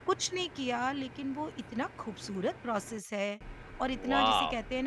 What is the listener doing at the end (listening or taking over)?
listening